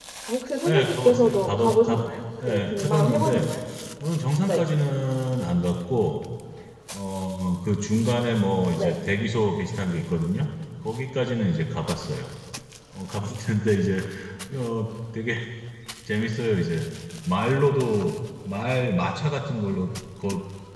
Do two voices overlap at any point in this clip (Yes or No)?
Yes